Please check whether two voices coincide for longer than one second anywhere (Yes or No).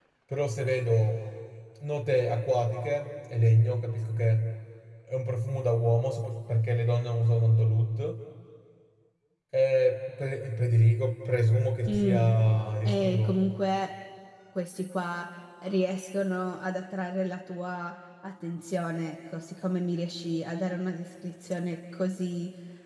No